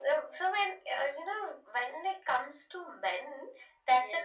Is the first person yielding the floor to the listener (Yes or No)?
No